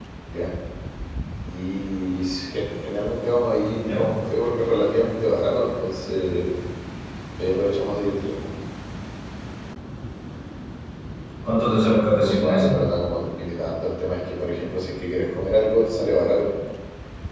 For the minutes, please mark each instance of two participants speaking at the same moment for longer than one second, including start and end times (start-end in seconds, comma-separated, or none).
11.6-12.8